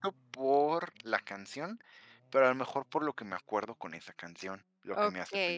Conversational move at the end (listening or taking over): taking over